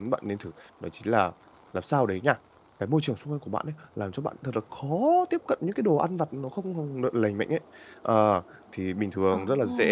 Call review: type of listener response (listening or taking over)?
listening